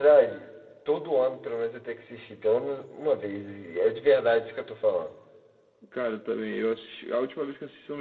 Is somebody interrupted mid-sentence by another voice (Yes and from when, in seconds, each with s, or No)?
No